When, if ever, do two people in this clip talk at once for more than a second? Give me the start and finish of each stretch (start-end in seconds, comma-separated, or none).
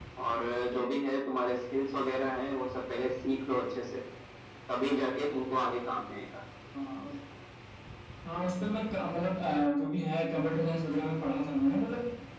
none